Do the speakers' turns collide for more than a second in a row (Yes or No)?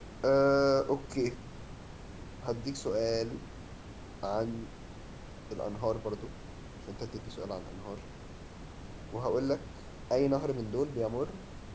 No